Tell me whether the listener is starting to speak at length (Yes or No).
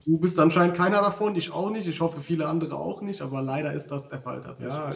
Yes